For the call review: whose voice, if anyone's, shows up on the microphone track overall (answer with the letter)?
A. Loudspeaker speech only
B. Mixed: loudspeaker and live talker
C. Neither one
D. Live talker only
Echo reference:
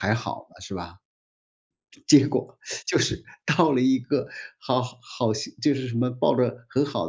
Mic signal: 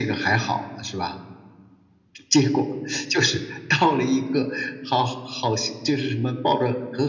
A